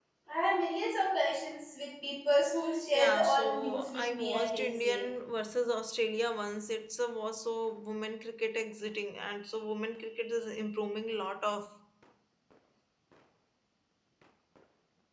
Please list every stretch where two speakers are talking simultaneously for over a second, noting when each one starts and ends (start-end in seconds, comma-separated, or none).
2.9-5.0